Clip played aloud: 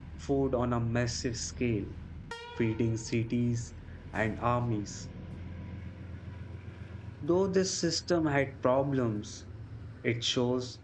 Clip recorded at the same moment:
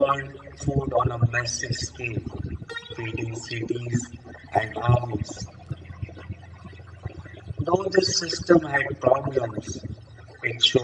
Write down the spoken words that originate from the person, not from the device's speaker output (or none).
none